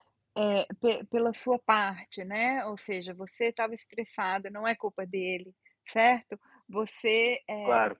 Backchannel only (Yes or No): Yes